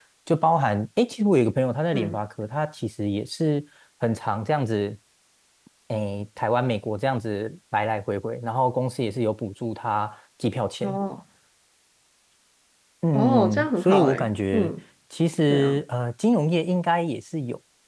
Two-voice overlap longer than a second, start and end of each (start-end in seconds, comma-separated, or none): 13.1-14.7